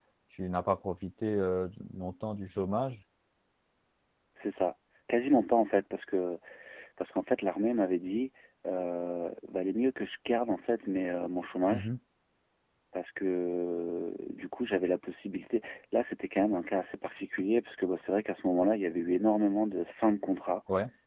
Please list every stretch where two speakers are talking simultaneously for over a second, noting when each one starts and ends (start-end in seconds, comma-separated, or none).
none